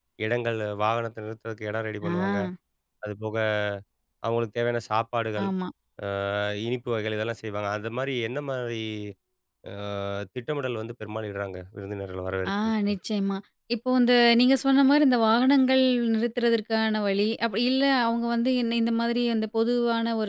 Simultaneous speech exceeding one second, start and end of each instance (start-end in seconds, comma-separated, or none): none